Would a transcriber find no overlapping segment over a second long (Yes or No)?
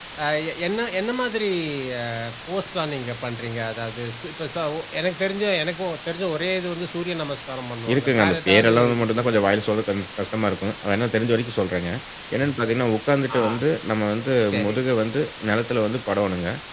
No